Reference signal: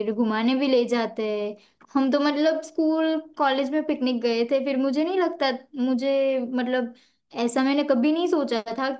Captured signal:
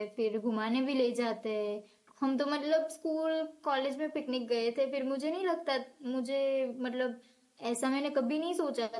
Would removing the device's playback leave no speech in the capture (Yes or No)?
Yes